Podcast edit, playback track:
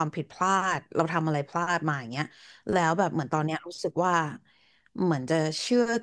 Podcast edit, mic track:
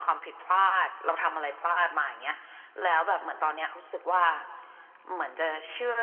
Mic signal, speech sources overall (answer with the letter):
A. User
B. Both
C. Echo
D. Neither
C